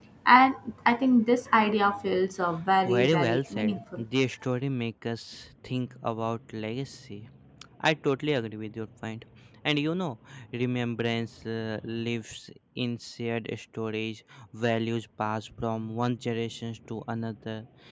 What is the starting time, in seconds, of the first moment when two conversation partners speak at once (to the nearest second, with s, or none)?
3 s